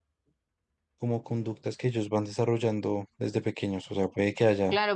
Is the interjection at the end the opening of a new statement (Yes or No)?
Yes